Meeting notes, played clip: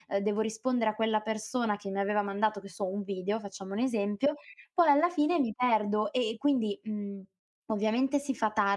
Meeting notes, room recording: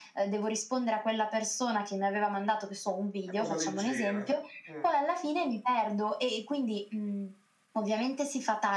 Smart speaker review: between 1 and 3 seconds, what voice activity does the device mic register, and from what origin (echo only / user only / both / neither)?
echo only